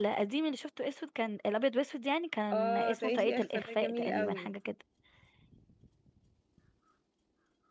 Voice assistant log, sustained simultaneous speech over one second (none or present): present